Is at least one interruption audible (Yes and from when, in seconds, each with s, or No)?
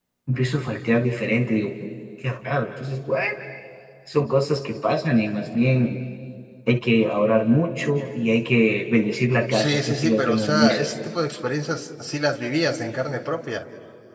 Yes, from 9.5 s